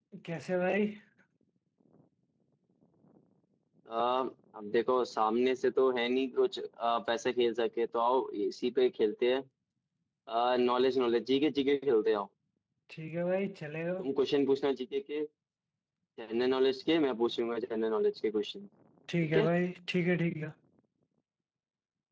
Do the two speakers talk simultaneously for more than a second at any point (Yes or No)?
No